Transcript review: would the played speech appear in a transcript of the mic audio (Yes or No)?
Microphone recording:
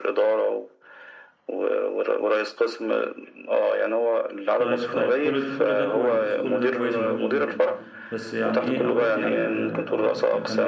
Yes